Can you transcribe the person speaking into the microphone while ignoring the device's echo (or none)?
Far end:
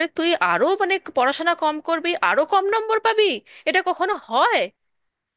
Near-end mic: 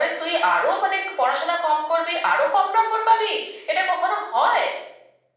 none